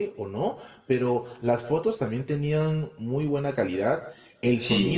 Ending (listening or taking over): listening